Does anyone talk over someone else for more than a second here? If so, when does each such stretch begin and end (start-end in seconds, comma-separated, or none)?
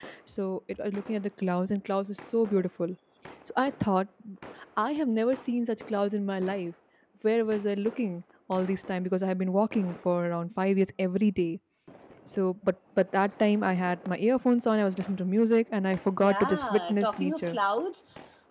16.2-17.6